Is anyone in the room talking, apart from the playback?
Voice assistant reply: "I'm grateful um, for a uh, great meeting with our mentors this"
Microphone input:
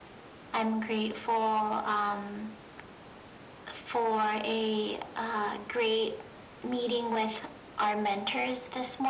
No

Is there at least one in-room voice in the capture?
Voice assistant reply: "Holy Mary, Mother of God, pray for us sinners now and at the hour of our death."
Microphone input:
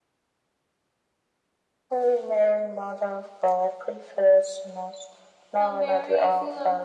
Yes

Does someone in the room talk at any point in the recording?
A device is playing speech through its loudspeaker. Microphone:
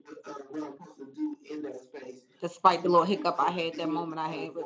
Yes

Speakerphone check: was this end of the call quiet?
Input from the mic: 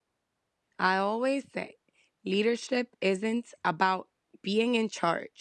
No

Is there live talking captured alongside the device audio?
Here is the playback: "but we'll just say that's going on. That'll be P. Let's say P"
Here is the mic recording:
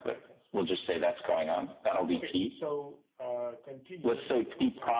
Yes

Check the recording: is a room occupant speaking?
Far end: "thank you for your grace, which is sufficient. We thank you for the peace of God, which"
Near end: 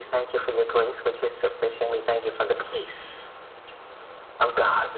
No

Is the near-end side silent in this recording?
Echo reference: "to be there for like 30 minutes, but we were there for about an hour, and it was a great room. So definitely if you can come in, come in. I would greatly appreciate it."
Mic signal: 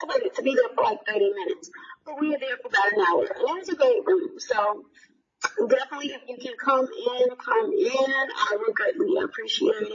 Yes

